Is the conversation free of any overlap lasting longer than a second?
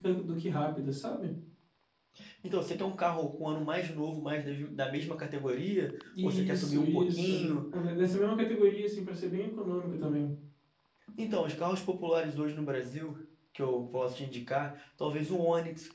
No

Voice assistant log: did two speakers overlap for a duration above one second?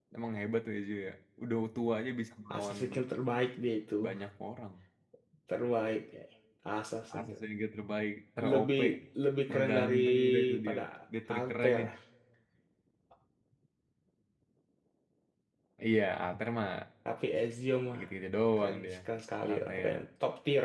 Yes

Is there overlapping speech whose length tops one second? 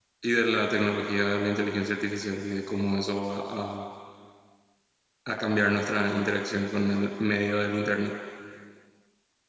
No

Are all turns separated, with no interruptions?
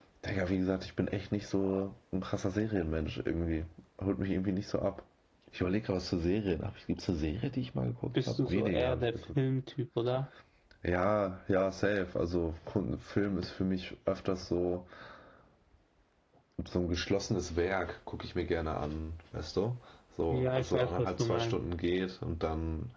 No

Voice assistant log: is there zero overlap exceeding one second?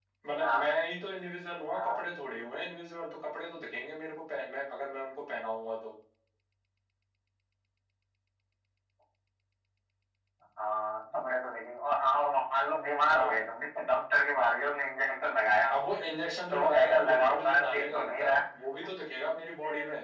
No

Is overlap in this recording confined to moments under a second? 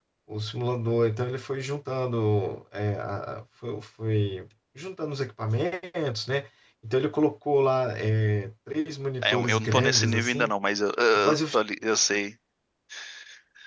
No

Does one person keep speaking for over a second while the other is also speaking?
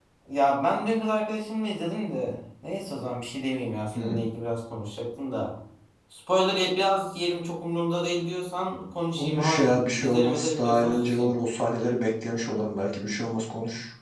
Yes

